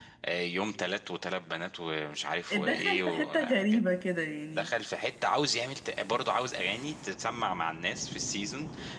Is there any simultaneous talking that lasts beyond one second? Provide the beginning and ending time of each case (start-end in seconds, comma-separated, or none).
2.5-3.8